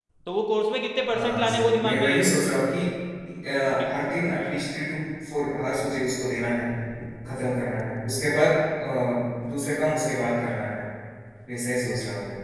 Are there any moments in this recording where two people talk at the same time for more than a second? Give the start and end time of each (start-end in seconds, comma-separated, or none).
1.1-2.3